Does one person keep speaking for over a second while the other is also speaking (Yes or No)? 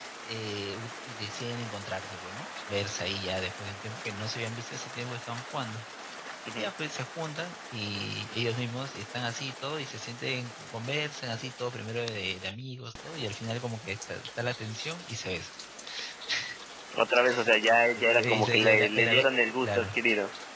Yes